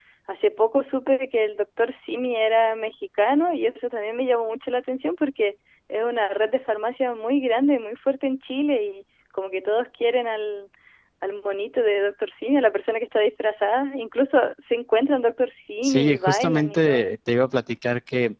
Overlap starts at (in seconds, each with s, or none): 15.8 s